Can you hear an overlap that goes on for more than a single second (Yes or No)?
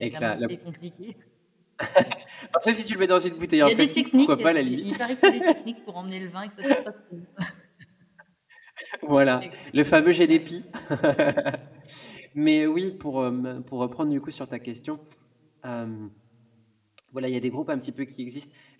Yes